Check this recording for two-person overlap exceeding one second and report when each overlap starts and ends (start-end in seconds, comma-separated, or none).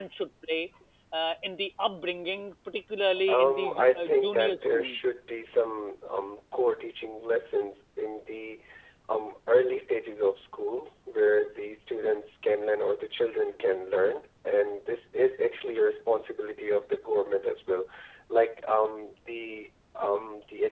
3.3-5.0